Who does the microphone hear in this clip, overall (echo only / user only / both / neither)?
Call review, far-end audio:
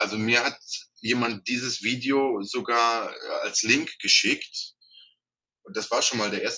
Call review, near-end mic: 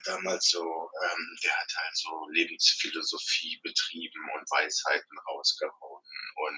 user only